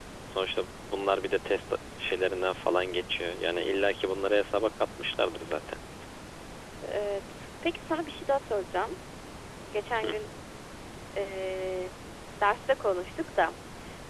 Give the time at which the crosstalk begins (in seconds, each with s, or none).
none